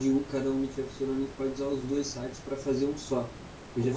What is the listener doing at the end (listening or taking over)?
listening